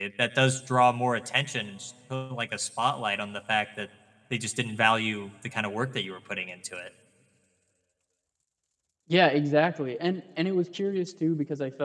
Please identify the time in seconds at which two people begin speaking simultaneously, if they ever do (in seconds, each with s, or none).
none